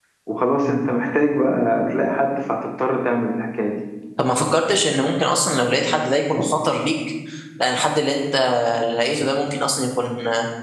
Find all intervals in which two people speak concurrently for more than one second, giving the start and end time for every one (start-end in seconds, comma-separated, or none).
none